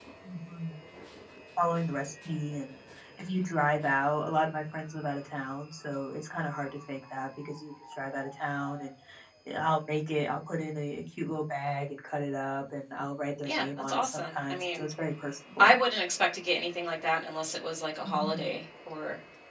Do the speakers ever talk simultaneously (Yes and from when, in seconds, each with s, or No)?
Yes, from 13.4 s